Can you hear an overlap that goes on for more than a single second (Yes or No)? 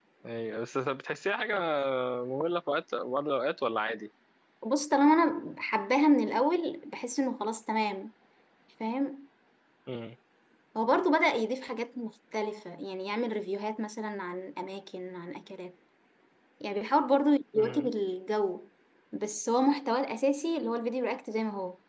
No